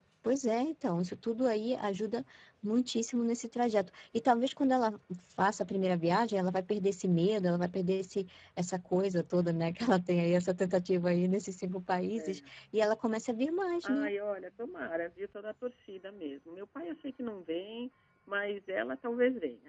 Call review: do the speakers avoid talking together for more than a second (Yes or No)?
Yes